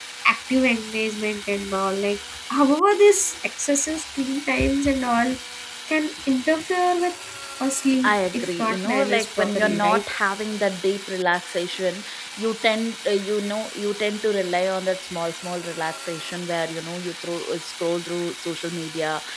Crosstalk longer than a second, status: present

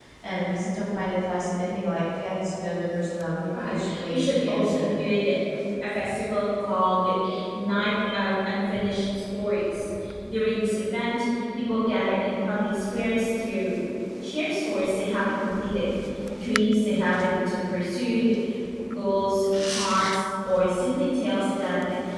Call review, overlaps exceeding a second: present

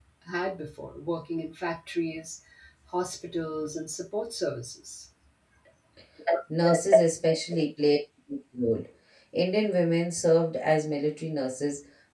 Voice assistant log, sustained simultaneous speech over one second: none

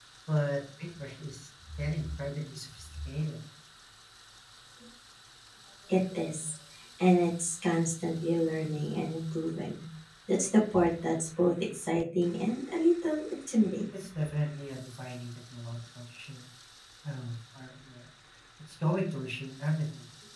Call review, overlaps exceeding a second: none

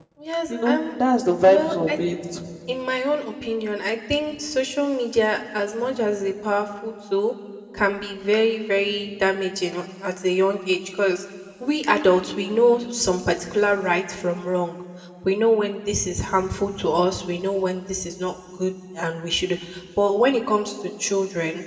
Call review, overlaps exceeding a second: none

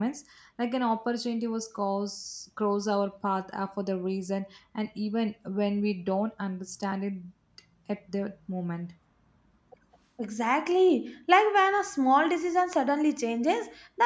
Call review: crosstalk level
none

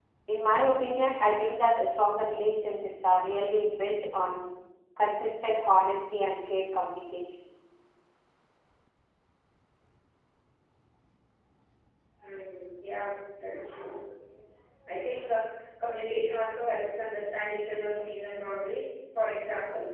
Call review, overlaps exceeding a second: none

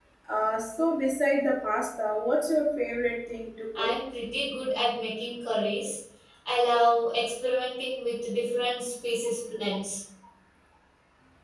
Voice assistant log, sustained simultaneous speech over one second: none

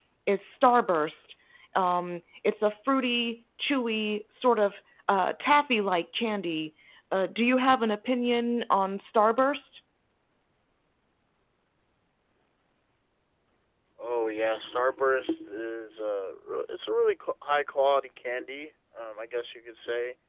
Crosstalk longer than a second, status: none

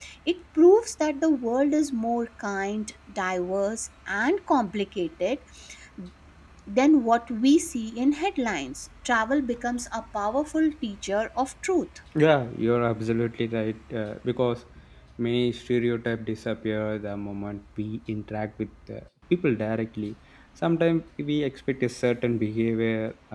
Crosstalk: none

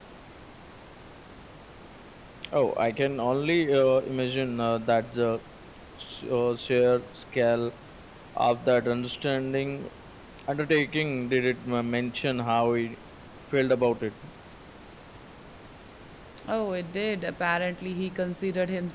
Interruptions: none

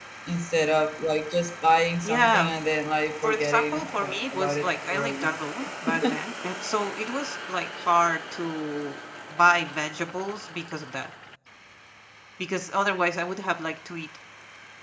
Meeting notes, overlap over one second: present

